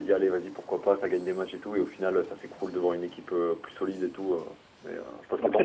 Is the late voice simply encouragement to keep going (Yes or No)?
No